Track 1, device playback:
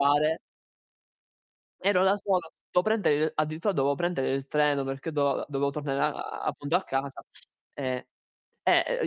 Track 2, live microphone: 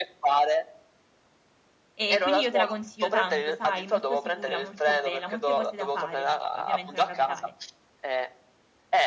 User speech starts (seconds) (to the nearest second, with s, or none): 2 s